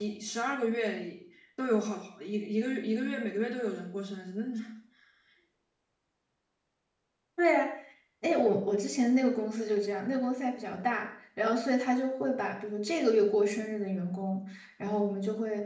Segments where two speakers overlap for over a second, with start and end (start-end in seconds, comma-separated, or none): none